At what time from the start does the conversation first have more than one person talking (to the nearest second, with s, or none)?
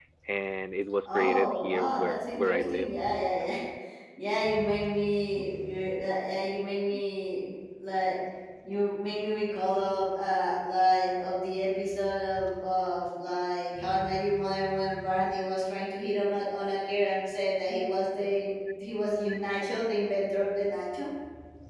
1 s